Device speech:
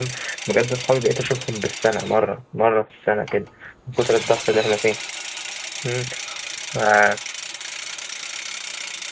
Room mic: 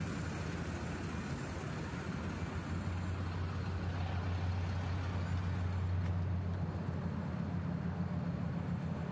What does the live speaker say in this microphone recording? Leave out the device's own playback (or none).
none